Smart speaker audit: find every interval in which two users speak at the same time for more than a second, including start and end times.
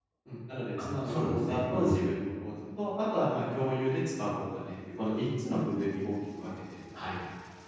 0.8-2.0

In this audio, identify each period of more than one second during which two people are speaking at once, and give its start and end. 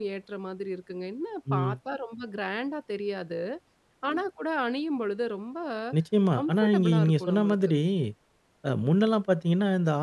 6.4-7.7

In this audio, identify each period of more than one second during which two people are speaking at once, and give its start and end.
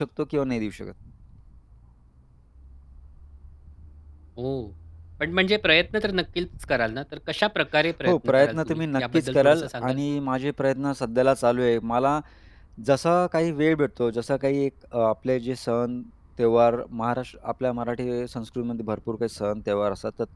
8.0-10.0

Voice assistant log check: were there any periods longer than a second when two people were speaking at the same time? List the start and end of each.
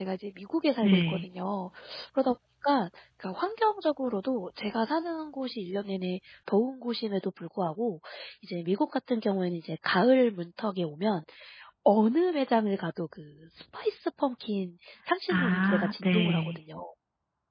15.3-16.6

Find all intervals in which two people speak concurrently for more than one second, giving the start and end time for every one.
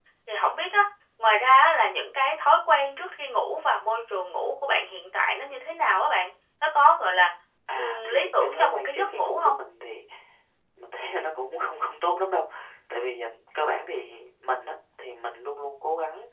7.8-9.6

